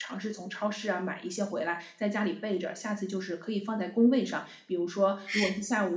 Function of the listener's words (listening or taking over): listening